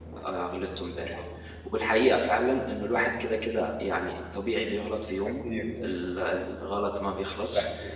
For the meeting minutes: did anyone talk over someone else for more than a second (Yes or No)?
No